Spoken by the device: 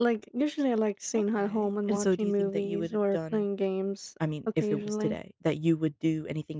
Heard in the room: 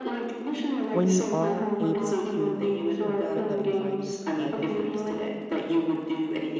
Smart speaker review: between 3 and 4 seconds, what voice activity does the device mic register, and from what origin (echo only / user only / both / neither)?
both